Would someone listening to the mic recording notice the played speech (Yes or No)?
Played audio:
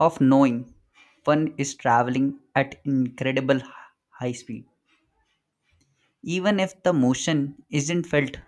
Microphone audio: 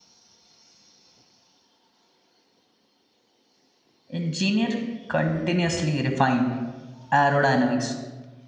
No